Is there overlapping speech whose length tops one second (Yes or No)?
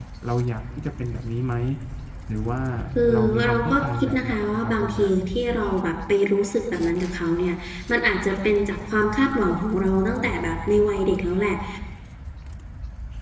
Yes